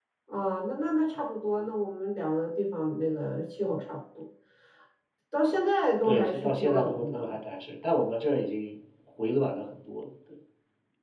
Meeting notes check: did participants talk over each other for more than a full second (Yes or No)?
Yes